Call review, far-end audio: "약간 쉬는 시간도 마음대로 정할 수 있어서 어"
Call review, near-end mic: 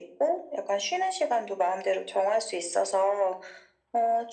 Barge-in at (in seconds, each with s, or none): none